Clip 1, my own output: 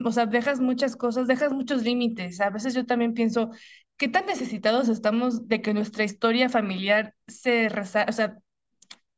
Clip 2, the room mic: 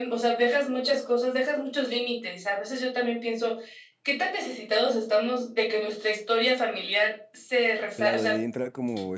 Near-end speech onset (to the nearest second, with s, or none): 8 s